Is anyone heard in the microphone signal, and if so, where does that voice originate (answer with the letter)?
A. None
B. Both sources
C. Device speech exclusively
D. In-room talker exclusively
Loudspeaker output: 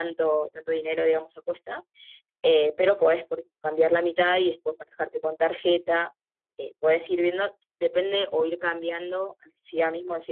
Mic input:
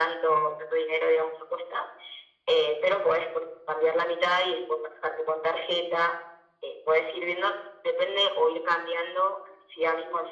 C